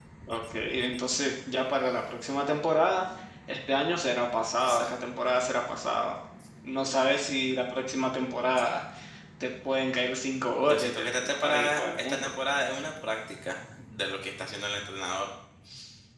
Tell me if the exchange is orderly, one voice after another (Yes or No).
No